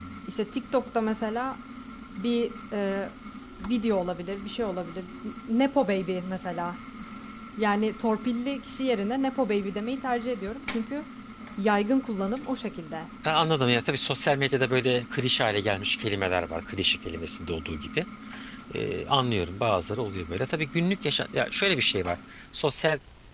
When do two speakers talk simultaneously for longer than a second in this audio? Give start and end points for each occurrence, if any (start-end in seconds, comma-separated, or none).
none